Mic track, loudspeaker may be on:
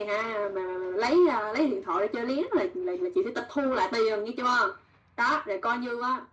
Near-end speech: none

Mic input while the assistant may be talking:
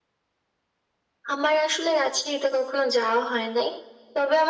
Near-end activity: none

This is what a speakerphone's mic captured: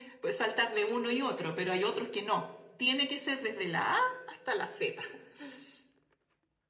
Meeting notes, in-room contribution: none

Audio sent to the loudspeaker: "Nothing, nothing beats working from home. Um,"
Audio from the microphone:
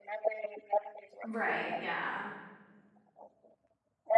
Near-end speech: present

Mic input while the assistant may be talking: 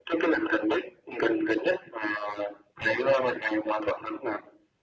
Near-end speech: none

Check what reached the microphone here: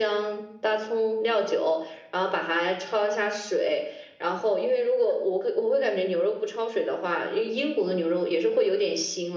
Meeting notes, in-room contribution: none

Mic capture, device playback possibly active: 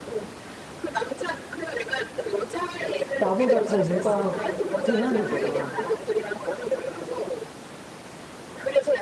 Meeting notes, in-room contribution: present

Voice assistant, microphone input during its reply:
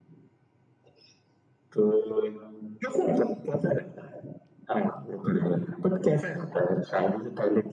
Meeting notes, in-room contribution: none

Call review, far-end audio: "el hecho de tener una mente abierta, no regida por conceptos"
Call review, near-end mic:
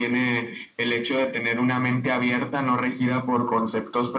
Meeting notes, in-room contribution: none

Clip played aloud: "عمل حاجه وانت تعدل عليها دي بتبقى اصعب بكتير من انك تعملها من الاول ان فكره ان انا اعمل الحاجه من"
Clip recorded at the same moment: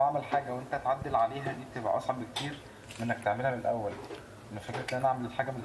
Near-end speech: none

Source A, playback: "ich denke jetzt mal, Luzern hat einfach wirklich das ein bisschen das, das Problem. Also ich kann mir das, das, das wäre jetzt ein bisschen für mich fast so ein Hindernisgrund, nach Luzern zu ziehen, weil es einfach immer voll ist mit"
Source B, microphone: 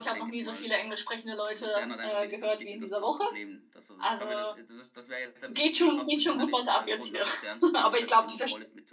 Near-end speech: present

